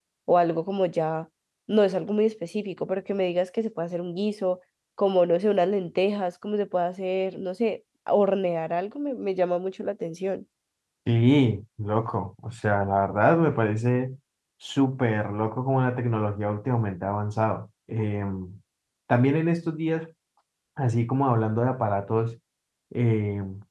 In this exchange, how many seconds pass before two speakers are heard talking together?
none

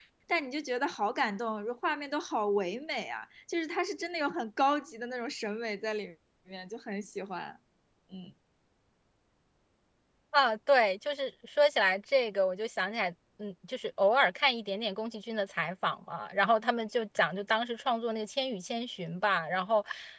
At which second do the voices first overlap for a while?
none

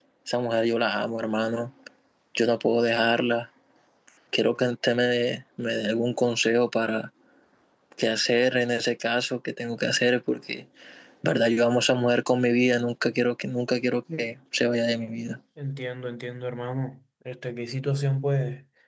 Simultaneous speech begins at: none

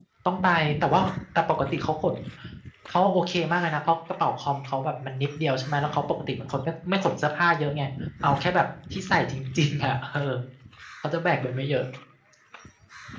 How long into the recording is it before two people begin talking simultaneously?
none

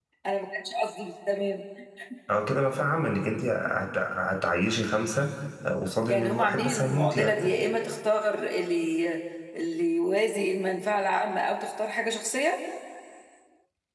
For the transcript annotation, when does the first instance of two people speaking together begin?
6.1 s

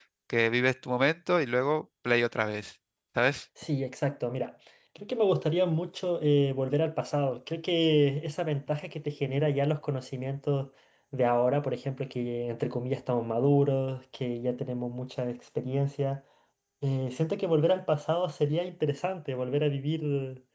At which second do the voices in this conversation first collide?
none

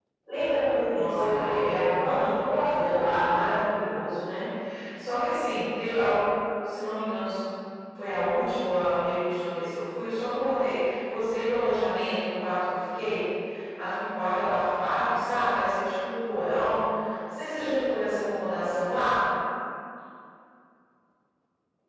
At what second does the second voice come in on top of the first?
0.9 s

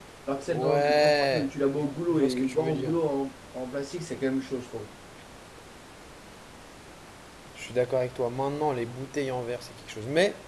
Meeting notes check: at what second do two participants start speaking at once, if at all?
0.5 s

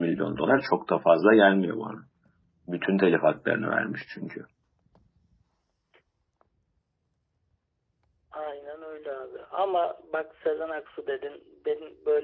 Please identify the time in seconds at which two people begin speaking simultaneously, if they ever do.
none

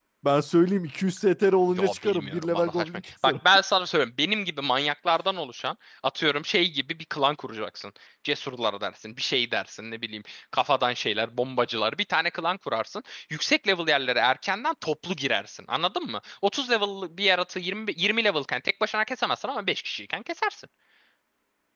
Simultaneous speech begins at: 1.8 s

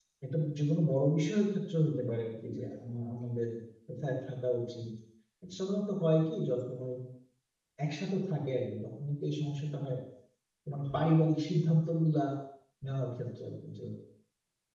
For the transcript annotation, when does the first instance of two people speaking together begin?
none

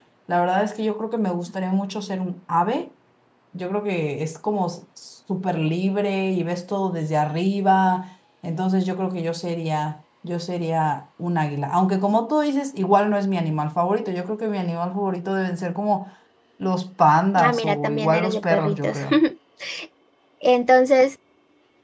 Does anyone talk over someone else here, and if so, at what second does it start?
17.4 s

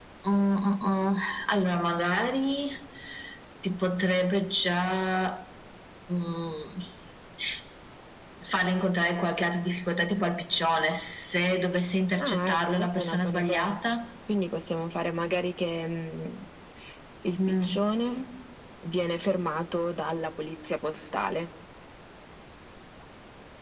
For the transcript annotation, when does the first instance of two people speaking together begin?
12.2 s

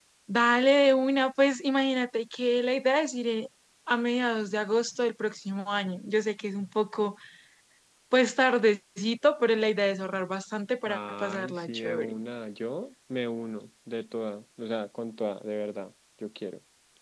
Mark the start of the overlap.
10.9 s

